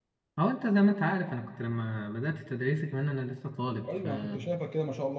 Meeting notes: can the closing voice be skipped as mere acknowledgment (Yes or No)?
No